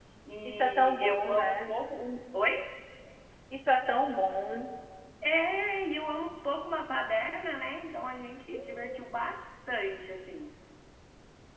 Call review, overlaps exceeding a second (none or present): present